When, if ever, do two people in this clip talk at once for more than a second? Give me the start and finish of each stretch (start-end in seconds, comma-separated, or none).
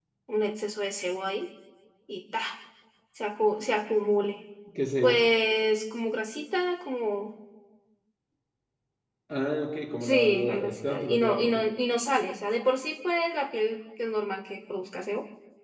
10.0-11.6